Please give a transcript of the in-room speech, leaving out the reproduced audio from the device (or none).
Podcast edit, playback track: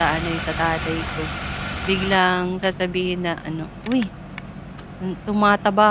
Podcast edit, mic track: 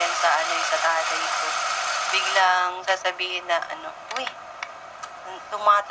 none